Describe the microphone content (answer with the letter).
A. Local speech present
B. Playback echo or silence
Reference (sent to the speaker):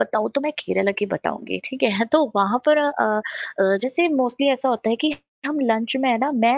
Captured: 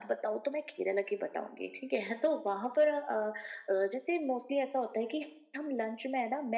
B